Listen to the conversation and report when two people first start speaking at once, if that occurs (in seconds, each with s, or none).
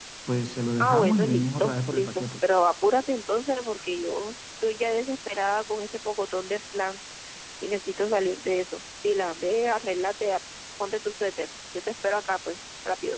0.8 s